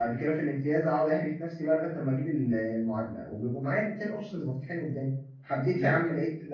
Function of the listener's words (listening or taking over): listening